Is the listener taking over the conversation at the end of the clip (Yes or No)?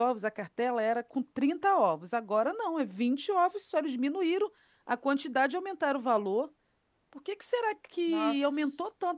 No